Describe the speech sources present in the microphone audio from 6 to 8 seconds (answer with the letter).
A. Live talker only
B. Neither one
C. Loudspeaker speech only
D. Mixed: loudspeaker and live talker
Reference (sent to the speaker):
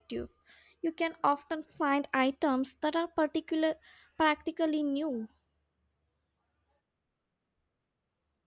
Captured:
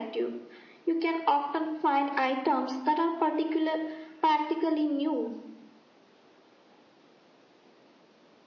B